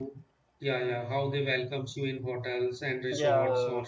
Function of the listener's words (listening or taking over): listening